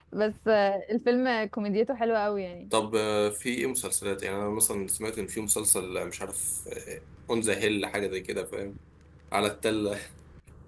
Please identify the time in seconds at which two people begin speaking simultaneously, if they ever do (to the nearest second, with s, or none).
none